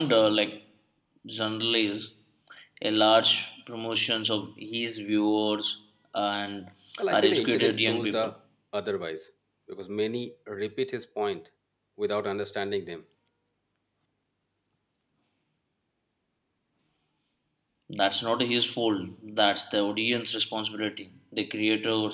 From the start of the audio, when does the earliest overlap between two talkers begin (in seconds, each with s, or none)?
7.1 s